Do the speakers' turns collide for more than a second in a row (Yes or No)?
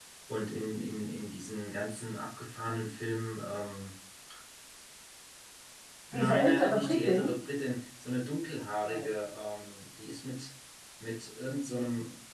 Yes